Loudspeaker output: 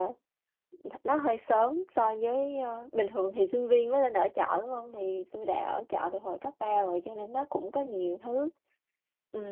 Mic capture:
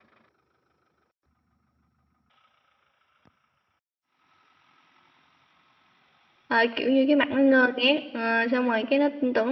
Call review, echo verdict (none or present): none